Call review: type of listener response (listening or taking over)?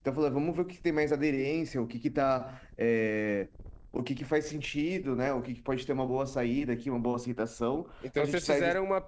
taking over